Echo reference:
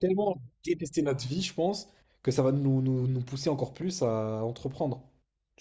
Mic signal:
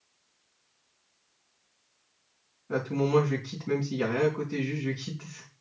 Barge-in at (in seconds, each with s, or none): 2.7 s